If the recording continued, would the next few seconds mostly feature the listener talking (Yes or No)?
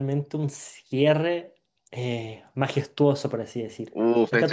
Yes